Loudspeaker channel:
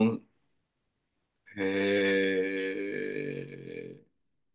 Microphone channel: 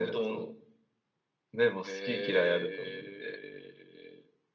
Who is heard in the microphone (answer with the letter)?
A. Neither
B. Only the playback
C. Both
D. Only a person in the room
C